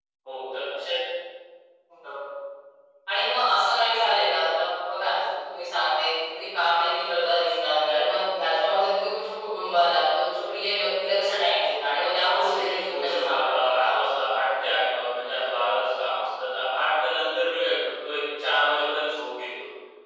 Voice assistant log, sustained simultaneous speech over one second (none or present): present